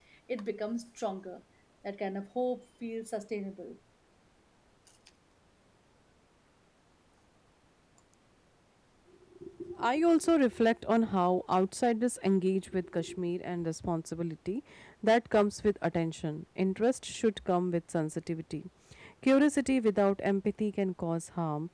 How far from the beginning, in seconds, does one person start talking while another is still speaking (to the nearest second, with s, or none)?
none